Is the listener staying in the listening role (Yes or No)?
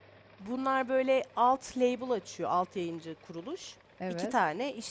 Yes